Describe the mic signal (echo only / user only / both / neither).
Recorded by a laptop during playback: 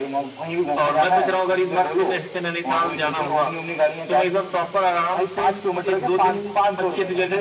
echo only